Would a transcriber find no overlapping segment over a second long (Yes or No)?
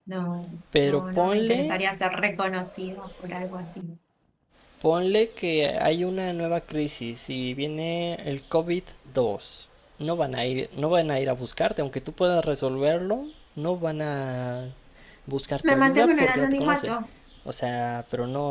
No